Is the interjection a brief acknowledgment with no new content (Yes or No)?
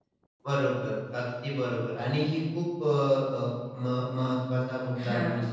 Yes